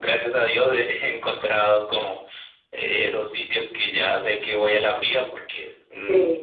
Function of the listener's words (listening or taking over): listening